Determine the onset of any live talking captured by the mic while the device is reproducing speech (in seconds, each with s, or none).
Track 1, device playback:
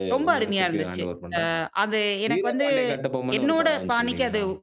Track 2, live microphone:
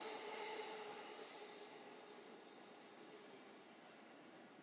none